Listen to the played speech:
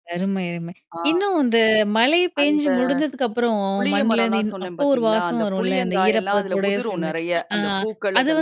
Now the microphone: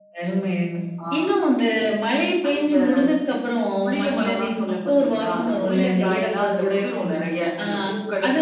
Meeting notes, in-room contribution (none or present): none